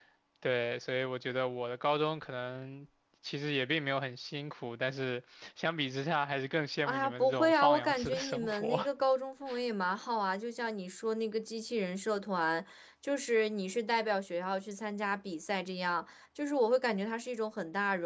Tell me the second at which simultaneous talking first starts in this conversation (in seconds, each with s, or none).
6.9 s